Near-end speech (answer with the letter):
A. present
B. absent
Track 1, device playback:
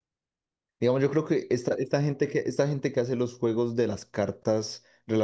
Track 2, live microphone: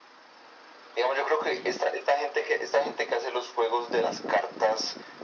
B